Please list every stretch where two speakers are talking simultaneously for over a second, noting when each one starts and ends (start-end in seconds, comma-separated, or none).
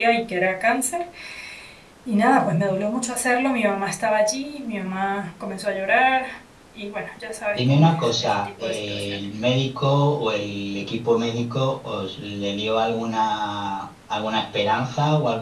7.5-9.2